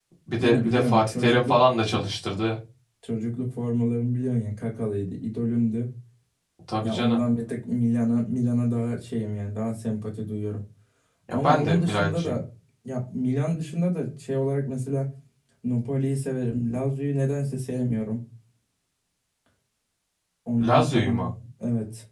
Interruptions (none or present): present